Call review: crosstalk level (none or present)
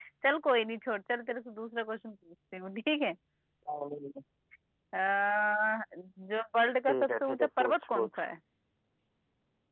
present